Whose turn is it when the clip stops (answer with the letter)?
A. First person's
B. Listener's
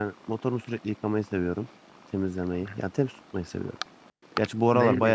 B